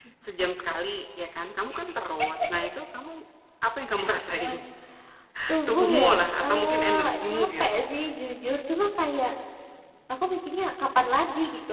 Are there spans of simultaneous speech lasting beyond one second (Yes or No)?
Yes